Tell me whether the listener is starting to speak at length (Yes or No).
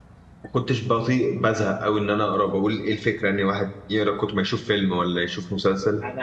Yes